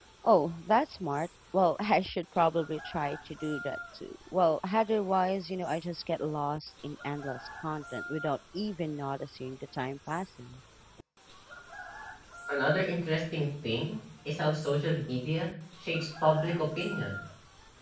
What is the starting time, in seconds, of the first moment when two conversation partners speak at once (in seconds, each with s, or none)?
none